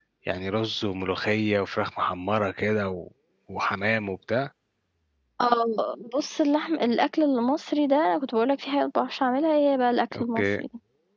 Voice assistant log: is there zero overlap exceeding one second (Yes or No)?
Yes